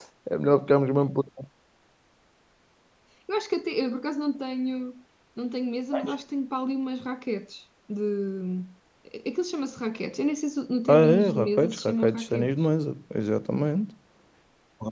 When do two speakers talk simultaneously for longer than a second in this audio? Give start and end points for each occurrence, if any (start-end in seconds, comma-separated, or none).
10.9-12.5